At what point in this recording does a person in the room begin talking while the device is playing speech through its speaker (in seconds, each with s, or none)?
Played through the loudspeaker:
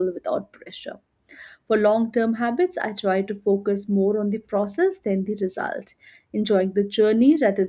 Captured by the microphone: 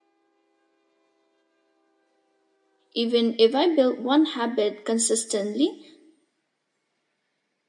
2.9 s